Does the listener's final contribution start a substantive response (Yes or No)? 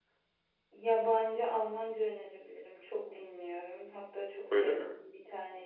No